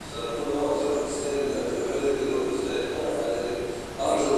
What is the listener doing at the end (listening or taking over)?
listening